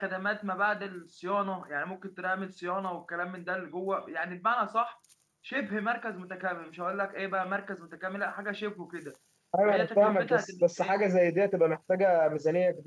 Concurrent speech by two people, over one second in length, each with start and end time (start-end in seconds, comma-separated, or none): 9.6-10.9